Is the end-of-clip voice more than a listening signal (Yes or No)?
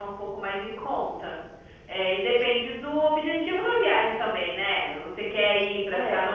No